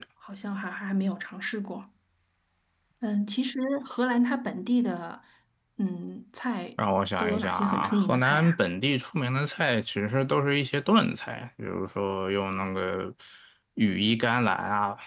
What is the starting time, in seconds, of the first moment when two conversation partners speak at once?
7.2 s

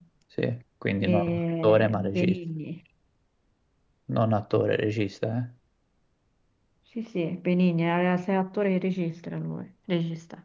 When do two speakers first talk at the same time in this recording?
1.0 s

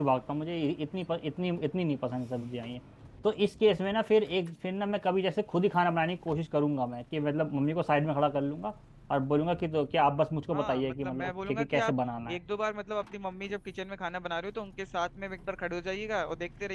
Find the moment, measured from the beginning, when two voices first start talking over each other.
10.5 s

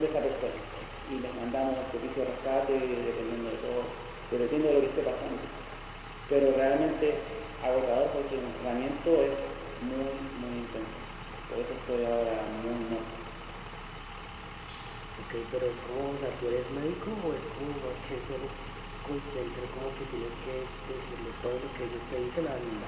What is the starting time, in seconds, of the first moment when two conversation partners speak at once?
none

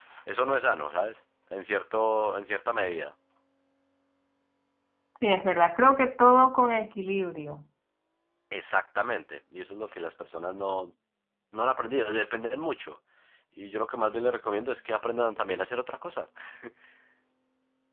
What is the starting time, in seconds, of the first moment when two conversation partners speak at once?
none

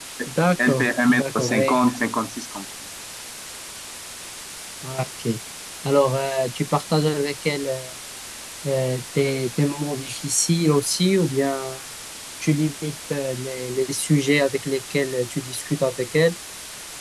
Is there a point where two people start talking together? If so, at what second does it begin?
0.6 s

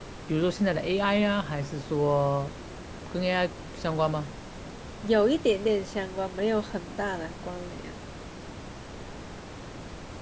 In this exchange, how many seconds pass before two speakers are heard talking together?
none

